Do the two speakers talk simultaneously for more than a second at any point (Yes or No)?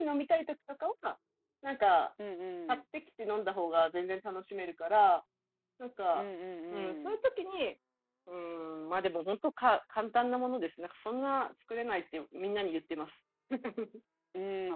No